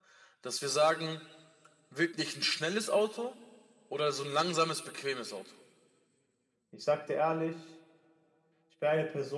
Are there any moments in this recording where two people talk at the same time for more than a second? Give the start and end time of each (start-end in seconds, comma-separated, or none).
none